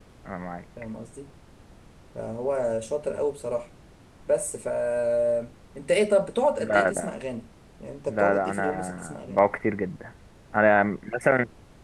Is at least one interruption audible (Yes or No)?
Yes